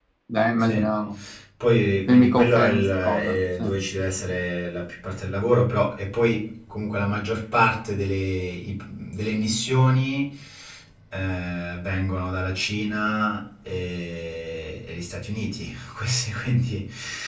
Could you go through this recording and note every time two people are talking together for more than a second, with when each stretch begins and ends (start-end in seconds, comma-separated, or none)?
2.1-3.6